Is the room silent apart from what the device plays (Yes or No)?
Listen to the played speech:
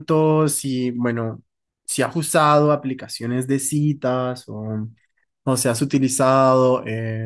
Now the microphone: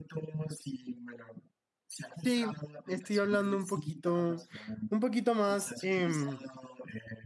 No